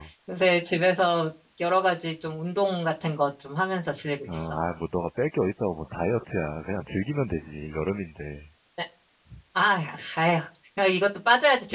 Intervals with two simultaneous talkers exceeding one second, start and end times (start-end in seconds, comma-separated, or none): none